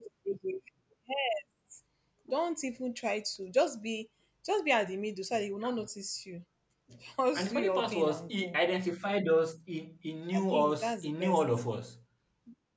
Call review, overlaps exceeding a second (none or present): present